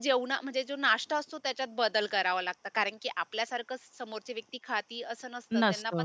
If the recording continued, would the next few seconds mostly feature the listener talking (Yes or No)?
No